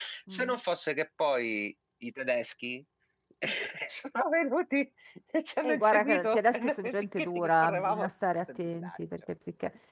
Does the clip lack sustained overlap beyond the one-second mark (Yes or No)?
No